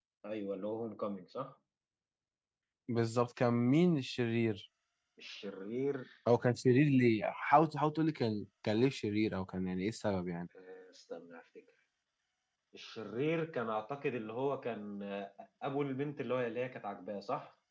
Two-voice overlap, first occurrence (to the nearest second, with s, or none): none